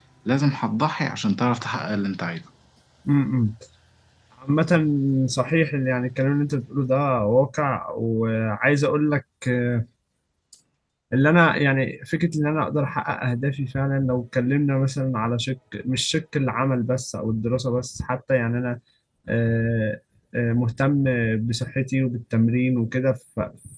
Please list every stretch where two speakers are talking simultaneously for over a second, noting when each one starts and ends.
none

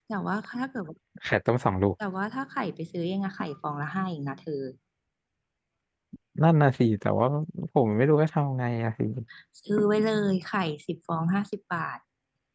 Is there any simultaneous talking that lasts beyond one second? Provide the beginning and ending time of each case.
none

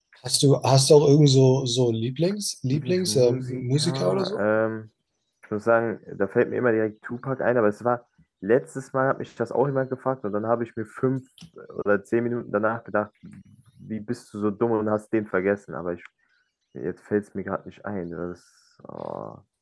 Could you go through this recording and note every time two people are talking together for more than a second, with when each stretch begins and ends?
2.7-4.4

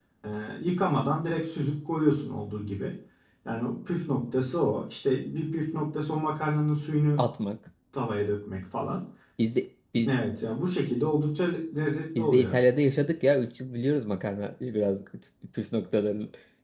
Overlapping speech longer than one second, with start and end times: none

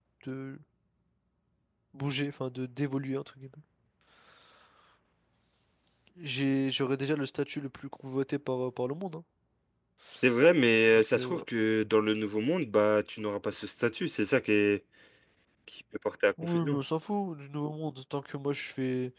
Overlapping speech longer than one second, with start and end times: none

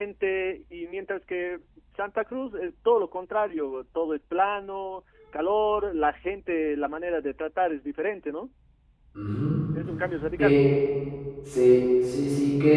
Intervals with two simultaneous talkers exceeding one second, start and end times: none

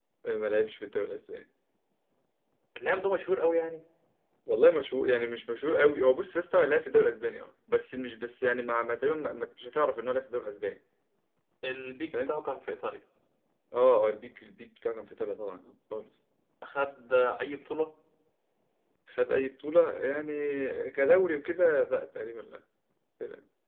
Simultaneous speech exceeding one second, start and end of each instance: none

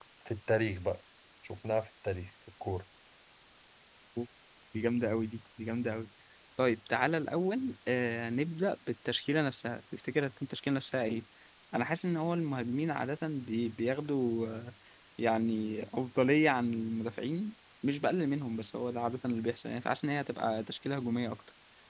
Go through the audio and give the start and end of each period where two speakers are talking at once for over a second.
none

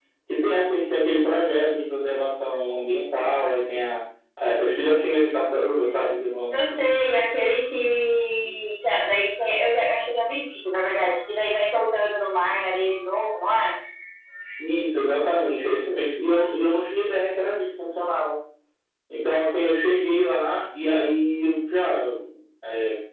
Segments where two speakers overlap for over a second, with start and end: none

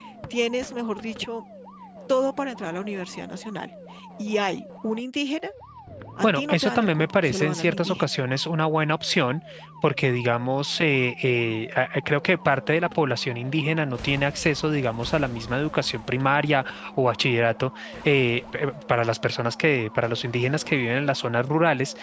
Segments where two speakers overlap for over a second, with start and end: 6.2-8.1

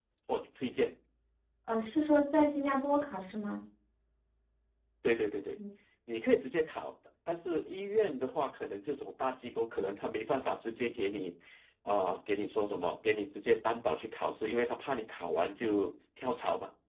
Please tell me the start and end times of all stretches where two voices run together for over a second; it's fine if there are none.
none

